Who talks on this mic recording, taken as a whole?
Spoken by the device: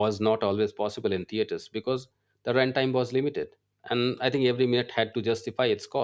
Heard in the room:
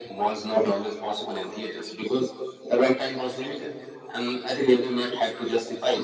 echo only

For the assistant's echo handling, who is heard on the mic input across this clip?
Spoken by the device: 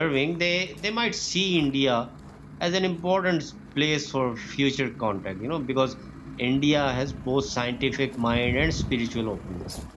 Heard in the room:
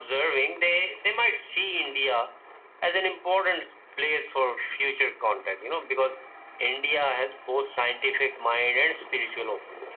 echo only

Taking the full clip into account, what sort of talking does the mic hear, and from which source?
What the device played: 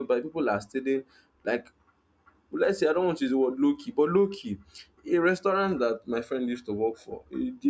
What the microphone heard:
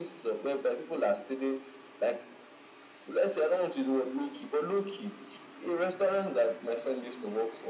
echo only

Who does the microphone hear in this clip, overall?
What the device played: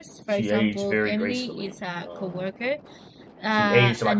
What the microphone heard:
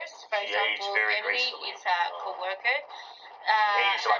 echo only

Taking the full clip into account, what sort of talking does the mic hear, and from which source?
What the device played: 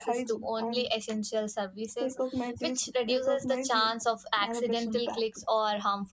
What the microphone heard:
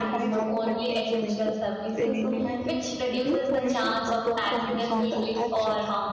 both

